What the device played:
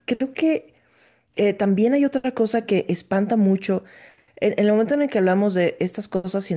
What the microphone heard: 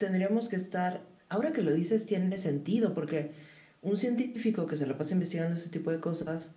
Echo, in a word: none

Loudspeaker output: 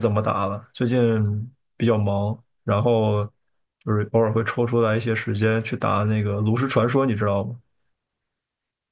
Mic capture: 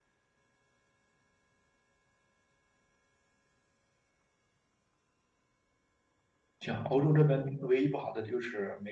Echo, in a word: none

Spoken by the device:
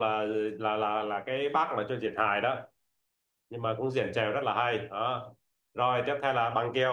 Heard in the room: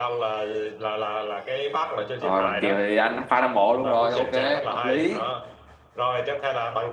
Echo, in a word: present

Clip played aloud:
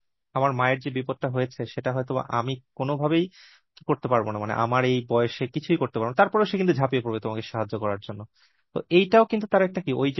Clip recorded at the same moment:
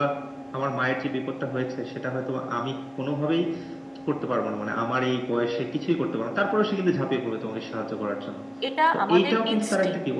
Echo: present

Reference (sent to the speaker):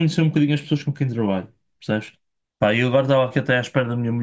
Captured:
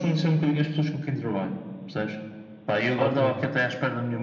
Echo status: present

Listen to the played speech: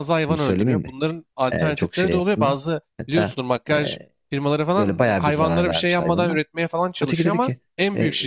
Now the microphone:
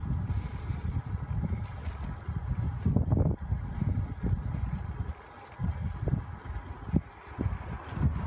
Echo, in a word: none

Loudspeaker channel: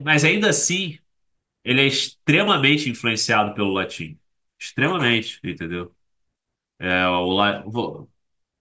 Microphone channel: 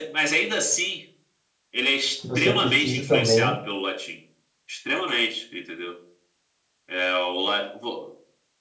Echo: present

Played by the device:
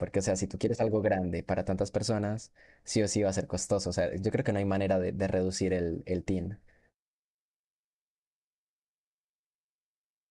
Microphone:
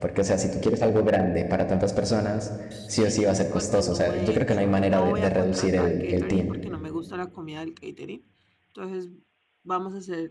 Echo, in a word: present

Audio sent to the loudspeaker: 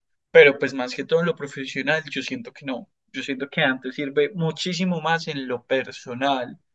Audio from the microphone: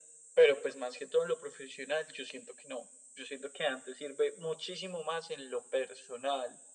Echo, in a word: present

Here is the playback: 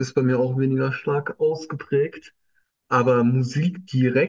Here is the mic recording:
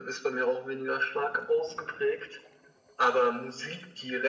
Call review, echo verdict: present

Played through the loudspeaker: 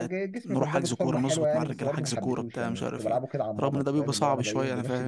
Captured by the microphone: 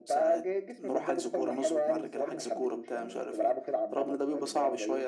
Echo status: present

